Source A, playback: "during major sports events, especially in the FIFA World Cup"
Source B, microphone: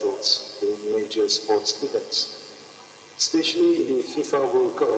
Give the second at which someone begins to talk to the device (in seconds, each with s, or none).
none